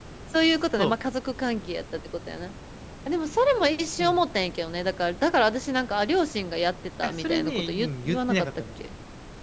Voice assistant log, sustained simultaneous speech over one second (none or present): present